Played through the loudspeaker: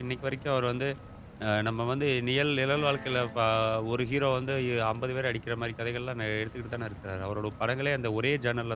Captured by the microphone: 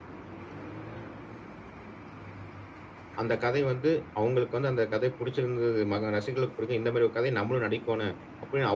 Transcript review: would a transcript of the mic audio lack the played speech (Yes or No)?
Yes